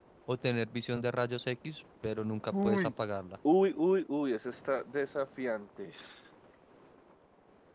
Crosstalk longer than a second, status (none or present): none